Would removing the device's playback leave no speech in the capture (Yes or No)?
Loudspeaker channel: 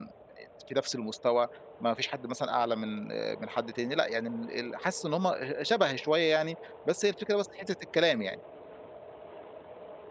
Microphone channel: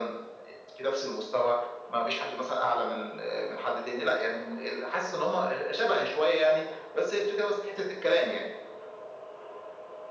Yes